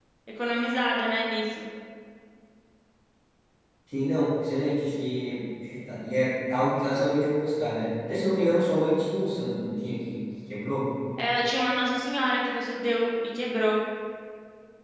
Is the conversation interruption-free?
Yes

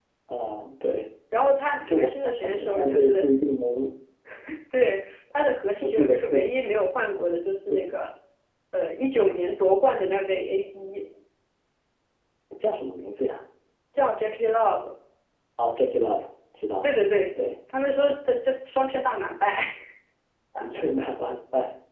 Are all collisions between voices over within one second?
No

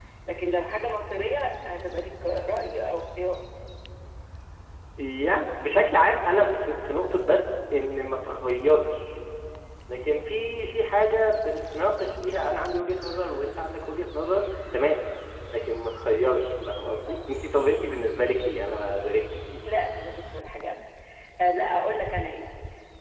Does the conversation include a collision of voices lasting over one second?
No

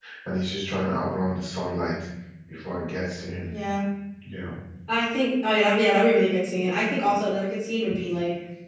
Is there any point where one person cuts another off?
No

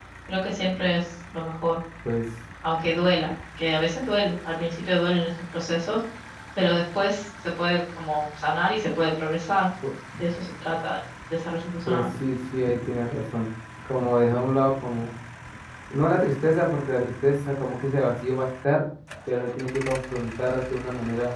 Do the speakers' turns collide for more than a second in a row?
No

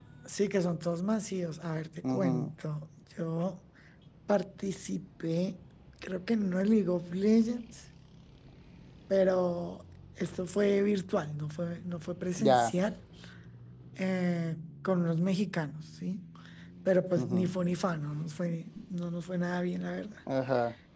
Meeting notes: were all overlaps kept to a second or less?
Yes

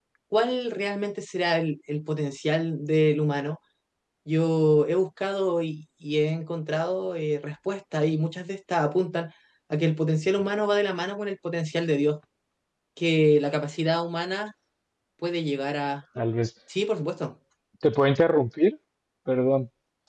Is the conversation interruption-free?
Yes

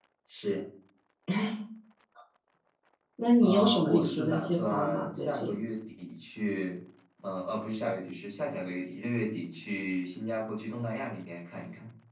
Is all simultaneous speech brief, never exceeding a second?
No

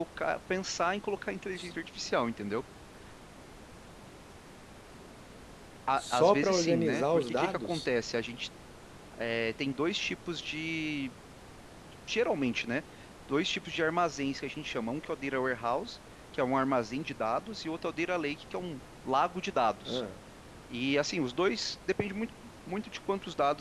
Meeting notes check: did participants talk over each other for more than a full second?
Yes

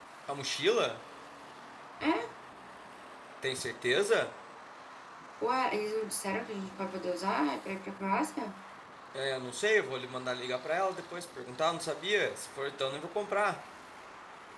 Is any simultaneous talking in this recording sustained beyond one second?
No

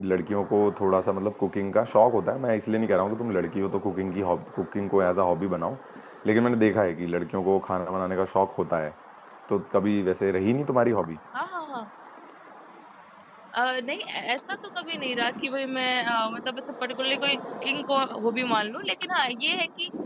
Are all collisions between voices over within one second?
Yes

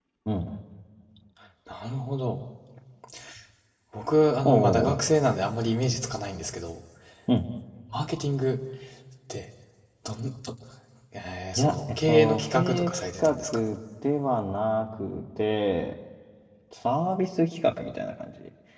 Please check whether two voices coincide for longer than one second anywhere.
Yes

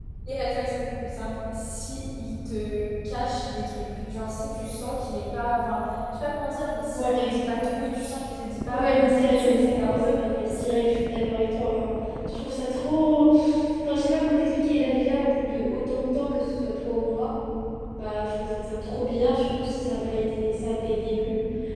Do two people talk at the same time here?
Yes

